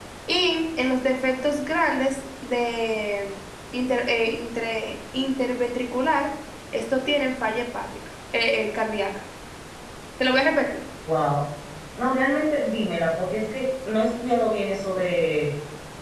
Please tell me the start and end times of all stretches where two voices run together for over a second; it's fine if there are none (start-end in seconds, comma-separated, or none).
none